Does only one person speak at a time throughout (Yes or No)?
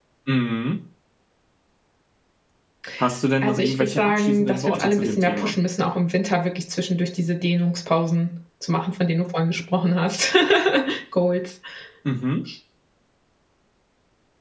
No